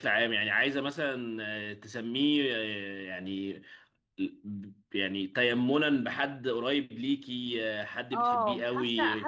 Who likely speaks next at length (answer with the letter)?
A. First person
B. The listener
B